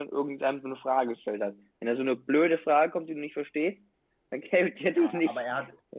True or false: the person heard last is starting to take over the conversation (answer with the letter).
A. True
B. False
A